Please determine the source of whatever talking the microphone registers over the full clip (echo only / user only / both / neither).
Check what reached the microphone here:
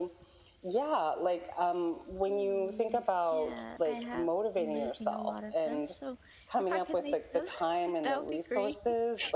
both